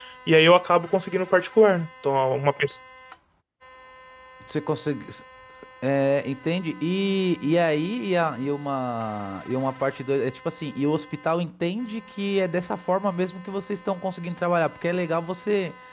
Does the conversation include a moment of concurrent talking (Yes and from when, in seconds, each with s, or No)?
No